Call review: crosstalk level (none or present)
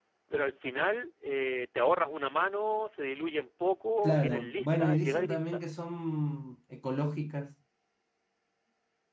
present